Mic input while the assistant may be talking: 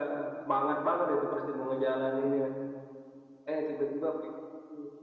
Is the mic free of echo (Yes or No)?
No